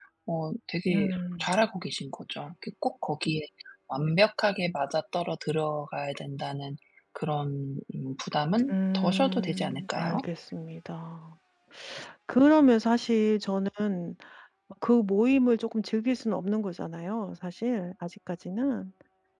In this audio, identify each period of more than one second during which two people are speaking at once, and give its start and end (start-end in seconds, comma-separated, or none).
8.7-10.2